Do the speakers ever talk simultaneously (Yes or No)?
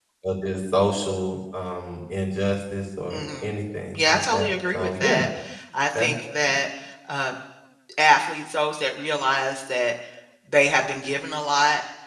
Yes